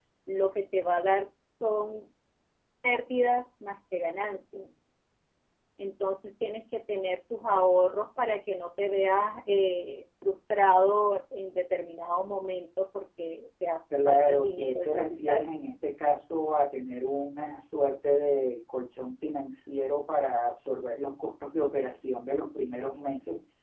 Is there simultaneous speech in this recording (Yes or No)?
Yes